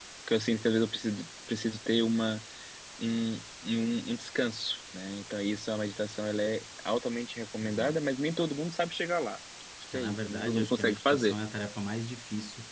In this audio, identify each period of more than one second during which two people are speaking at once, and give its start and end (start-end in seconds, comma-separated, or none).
9.9-11.4